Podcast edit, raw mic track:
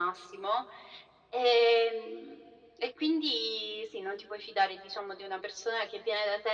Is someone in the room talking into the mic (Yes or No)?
No